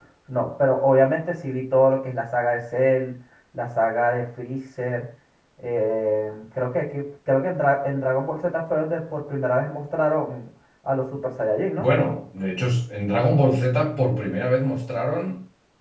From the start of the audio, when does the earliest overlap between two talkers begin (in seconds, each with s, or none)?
none